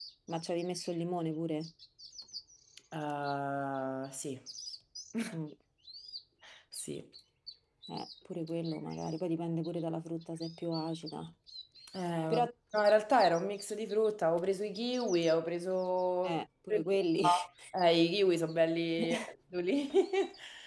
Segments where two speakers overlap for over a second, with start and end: none

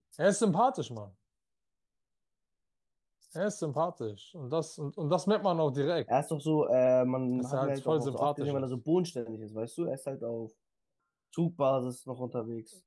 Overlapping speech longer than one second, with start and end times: 7.4-8.7

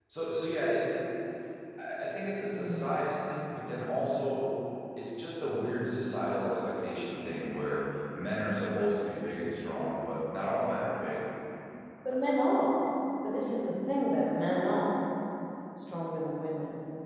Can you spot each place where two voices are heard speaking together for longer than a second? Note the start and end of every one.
none

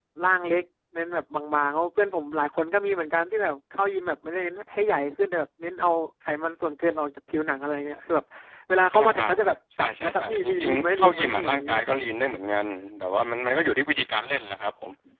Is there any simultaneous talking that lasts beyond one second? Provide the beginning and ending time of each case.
9.8-12.0

